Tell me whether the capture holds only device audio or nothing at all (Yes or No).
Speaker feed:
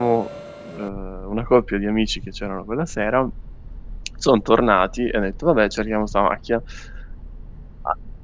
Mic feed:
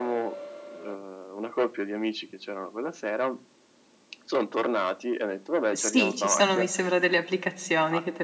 No